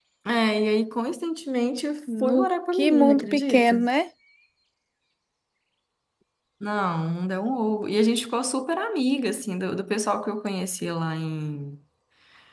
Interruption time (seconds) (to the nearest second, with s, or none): 2 s